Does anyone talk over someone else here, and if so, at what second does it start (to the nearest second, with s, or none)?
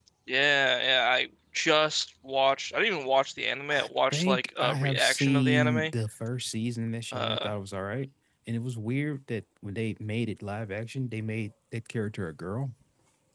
4 s